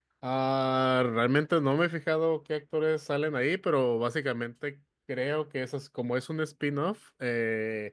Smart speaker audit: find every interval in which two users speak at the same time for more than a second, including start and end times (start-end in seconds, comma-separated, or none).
none